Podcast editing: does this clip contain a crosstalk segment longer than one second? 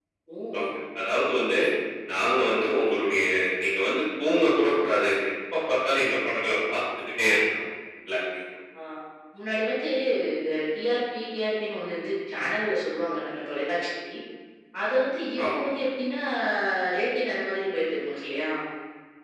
No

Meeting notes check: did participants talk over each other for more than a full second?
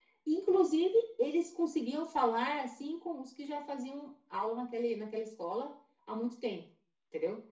No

